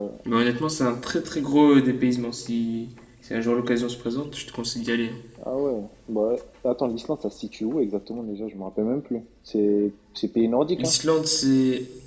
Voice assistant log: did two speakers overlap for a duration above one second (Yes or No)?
No